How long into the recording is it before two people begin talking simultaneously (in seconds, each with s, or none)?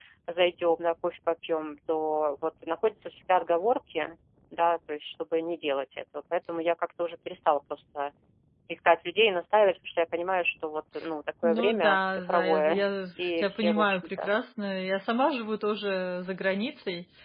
11.4 s